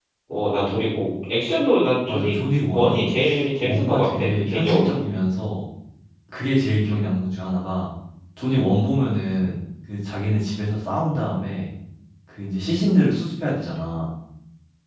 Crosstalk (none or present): present